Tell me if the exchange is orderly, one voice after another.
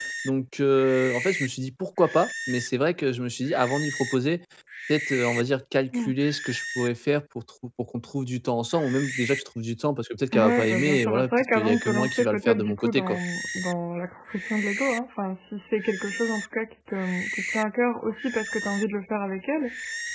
No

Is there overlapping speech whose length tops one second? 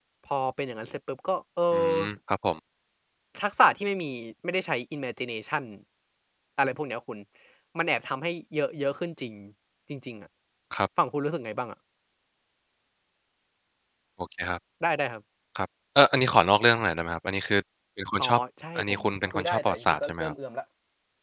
Yes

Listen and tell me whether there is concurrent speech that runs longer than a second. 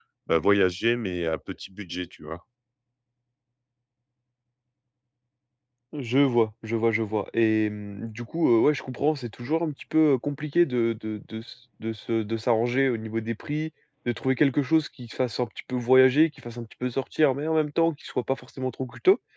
No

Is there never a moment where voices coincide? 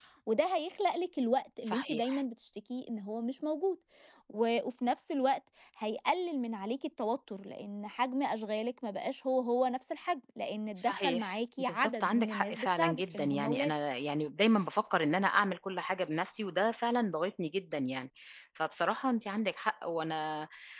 No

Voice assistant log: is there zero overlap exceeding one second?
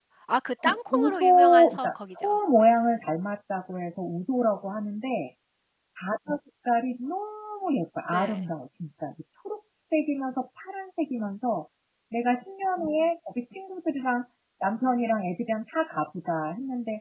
No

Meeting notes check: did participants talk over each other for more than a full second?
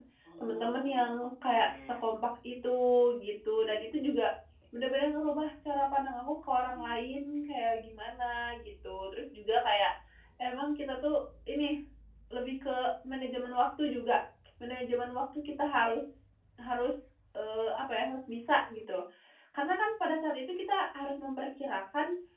Yes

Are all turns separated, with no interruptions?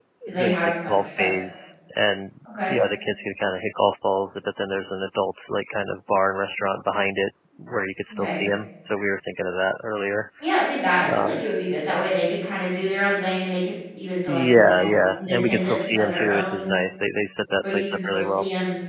No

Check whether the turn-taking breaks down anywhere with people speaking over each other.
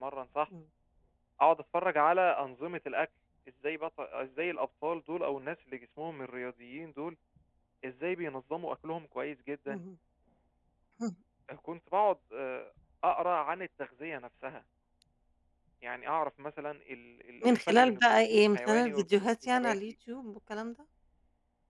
Yes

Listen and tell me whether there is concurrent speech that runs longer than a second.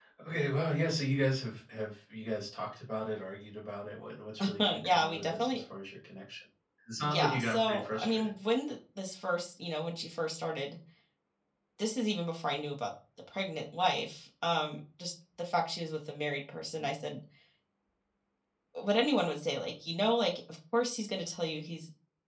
Yes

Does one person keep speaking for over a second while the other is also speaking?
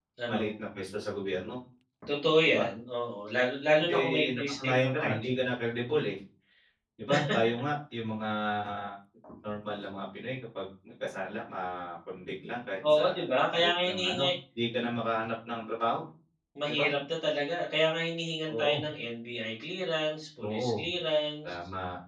Yes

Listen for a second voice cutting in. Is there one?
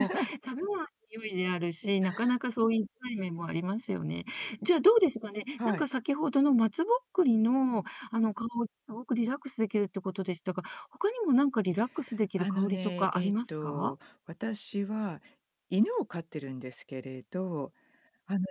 Yes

